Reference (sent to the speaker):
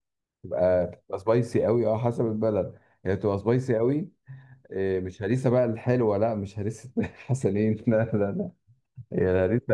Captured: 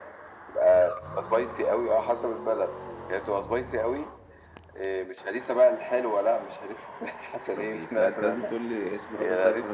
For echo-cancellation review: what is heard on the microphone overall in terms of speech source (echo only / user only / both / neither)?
both